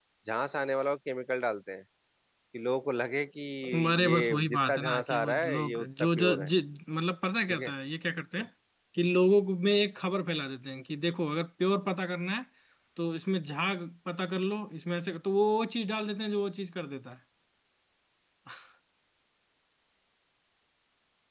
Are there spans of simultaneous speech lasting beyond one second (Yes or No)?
Yes